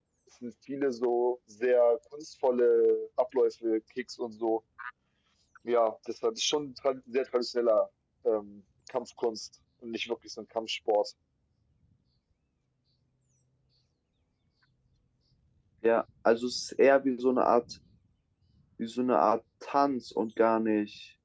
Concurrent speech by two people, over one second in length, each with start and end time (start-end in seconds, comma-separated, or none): none